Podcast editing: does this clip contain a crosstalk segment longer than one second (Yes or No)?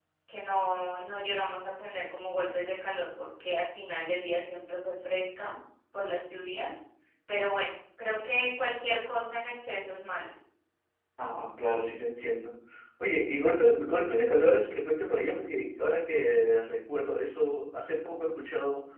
No